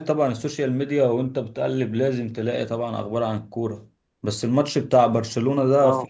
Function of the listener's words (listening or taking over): listening